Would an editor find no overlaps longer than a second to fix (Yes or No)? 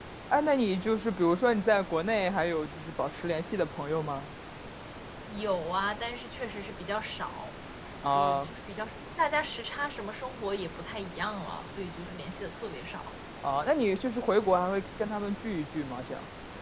Yes